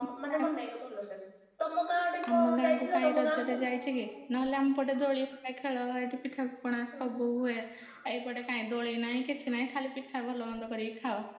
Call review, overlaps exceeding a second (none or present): present